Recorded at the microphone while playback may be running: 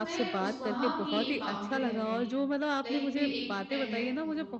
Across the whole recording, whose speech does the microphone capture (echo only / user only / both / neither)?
both